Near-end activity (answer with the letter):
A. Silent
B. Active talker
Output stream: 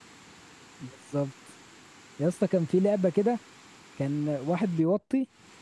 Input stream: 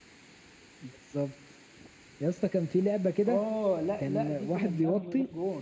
B